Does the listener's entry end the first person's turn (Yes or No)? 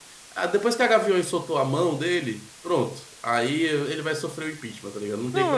Yes